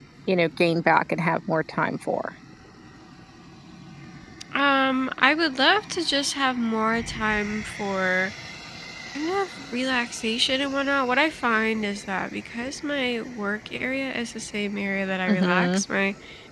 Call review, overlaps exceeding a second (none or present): none